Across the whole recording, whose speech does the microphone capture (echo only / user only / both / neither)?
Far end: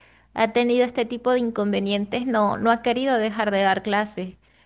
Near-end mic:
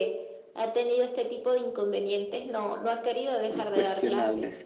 both